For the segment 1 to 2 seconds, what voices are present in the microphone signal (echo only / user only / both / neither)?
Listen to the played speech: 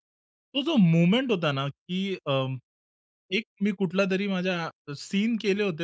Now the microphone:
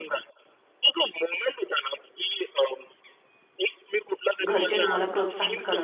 echo only